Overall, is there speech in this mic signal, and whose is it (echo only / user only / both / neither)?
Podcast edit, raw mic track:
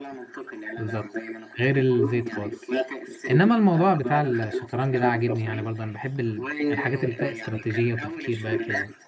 both